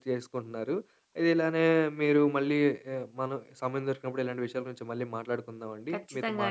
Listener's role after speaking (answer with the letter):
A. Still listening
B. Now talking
A